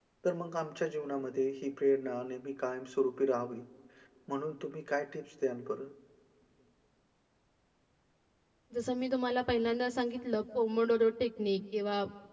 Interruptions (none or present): none